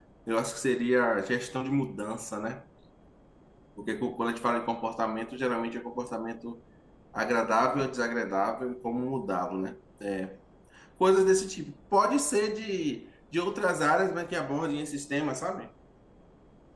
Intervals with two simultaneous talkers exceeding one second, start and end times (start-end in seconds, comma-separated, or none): none